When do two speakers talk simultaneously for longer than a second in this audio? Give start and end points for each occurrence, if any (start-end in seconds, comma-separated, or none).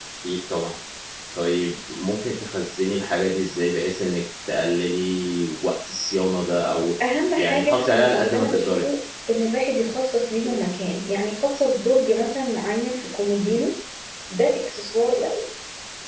7.4-8.8